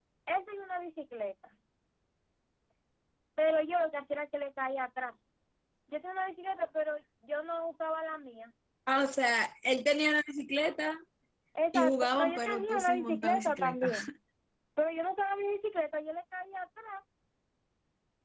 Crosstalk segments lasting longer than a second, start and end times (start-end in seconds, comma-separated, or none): 11.7-13.9